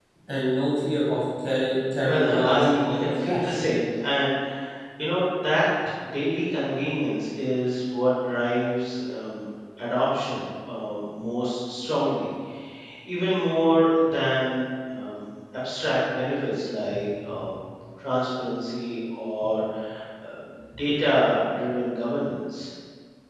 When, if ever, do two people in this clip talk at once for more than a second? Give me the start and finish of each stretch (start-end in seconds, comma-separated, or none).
2.0-3.6